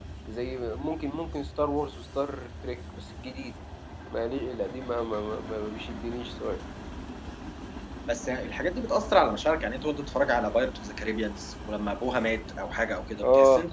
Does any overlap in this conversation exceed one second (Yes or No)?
No